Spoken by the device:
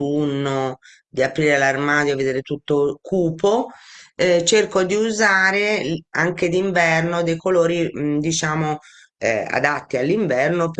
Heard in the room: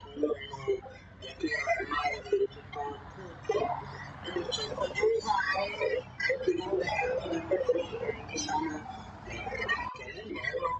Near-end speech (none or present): none